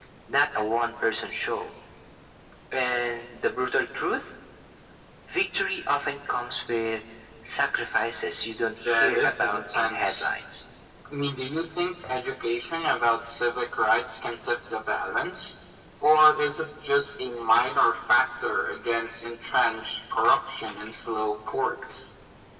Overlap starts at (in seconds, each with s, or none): 8.8 s